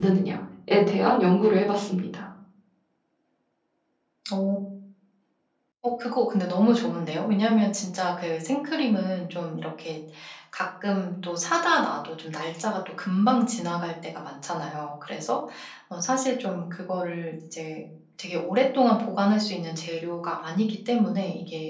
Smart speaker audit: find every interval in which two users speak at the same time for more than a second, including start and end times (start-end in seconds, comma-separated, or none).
none